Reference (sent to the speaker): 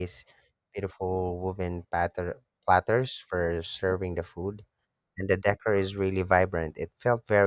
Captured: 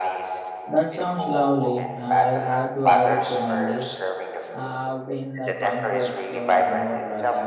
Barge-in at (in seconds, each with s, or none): 0.6 s